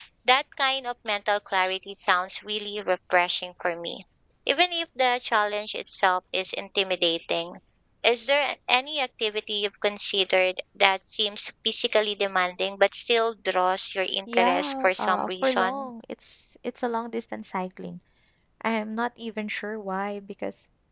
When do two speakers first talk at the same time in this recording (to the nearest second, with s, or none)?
14 s